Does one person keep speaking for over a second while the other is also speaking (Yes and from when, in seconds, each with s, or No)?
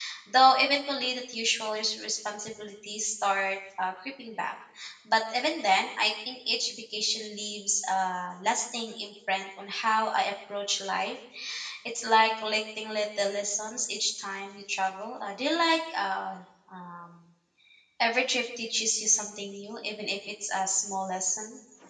No